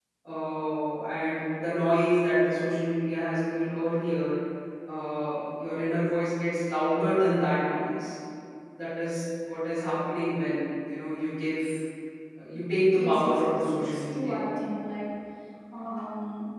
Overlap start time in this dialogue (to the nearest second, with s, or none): 13 s